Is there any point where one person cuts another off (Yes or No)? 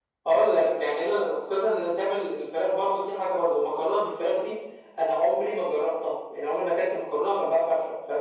No